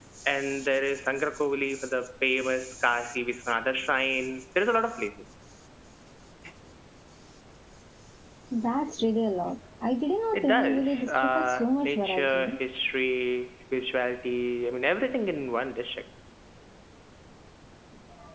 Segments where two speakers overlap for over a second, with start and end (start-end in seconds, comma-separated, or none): 10.3-12.6